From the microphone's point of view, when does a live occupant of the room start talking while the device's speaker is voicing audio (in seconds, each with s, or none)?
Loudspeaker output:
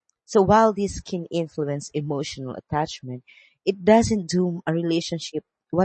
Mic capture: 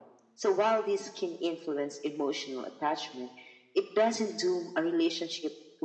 none